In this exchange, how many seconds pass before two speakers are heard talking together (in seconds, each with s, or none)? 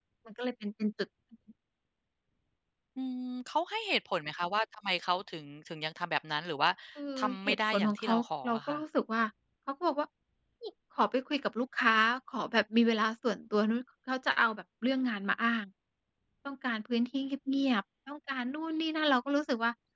7.5 s